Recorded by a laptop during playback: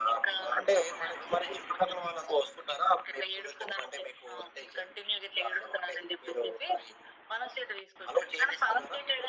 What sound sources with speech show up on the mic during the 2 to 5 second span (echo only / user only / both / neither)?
echo only